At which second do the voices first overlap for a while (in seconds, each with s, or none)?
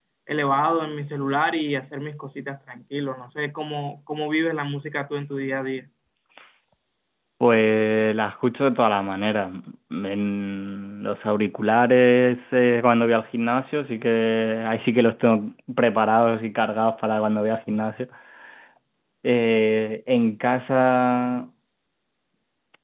none